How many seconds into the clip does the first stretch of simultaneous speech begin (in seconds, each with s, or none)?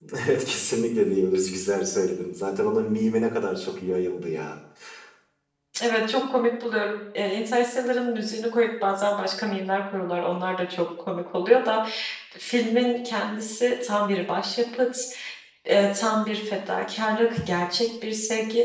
none